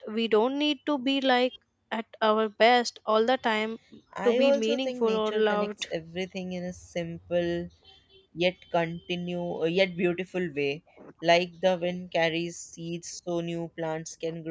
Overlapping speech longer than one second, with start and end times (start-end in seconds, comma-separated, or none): 4.2-5.7